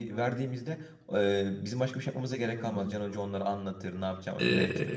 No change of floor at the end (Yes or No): No